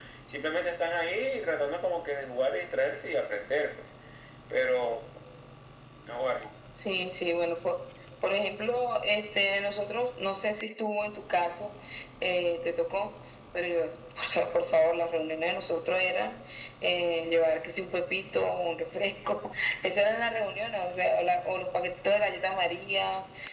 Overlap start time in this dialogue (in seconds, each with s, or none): none